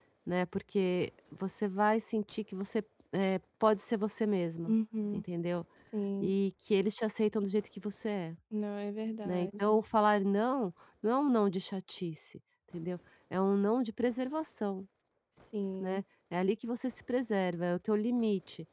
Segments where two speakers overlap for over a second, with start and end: none

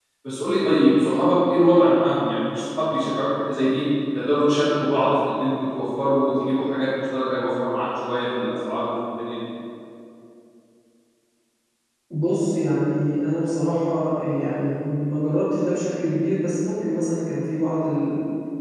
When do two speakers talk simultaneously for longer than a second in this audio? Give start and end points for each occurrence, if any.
none

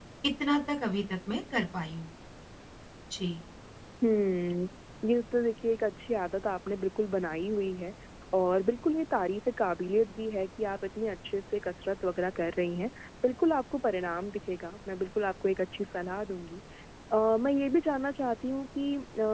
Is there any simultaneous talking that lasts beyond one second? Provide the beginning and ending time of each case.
none

